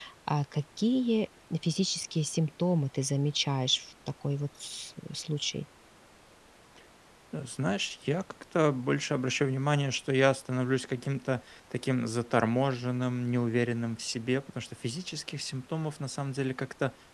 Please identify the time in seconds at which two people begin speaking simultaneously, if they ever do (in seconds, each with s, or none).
none